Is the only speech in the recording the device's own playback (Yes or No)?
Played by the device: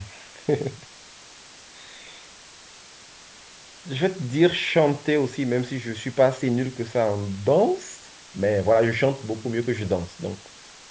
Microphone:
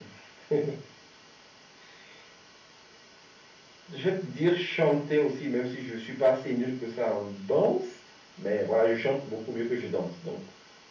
Yes